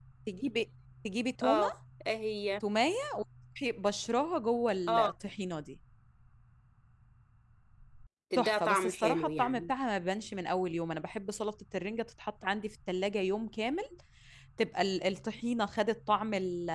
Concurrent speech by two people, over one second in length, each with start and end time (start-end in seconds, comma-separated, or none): 8.4-9.7